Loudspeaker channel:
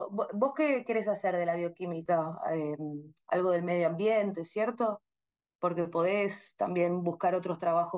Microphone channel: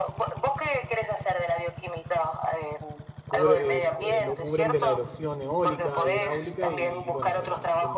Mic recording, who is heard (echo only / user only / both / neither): both